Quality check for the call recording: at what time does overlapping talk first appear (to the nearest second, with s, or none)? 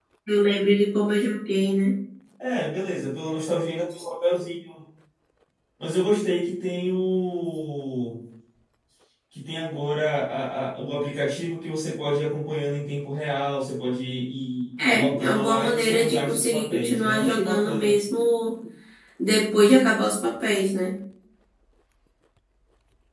15 s